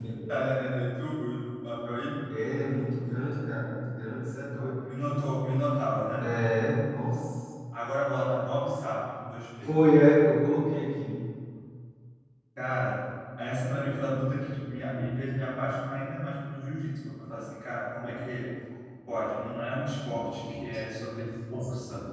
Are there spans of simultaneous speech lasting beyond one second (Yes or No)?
No